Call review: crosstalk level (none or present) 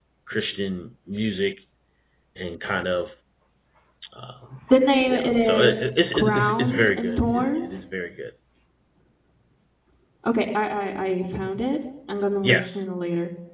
present